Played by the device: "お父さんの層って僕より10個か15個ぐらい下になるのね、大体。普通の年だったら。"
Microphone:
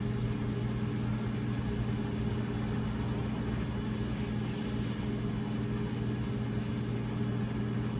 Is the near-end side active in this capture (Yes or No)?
No